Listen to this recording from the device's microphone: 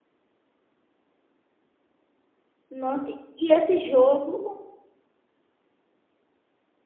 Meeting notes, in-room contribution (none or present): present